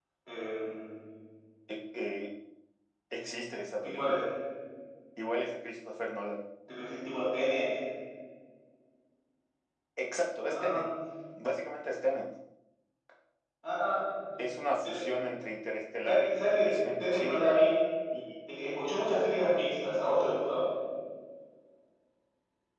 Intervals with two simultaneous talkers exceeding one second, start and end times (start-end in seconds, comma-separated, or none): 16.0-17.5